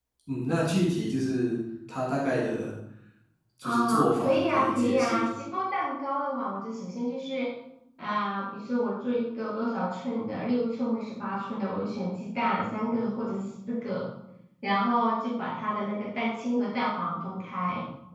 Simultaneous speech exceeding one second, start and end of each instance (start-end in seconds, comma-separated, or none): 3.6-5.3